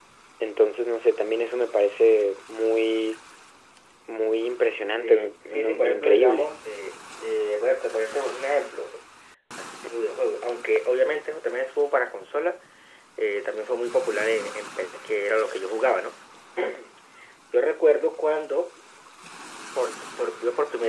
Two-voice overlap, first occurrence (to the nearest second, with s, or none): 5 s